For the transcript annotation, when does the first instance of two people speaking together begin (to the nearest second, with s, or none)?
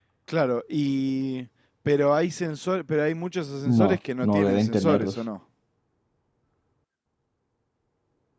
4 s